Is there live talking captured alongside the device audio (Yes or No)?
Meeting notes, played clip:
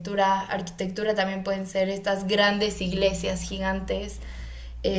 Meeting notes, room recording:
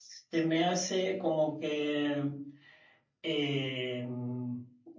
Yes